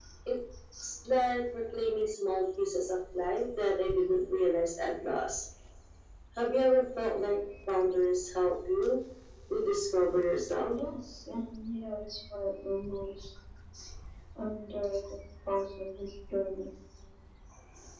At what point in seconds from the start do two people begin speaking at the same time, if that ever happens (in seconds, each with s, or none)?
none